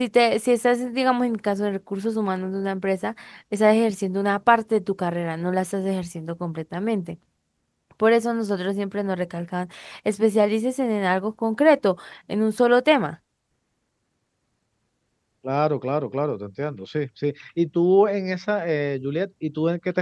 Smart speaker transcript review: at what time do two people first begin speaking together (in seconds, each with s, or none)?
none